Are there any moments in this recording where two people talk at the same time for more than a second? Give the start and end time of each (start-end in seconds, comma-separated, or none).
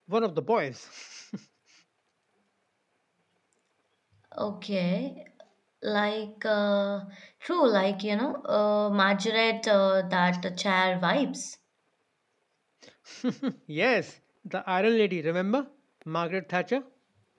none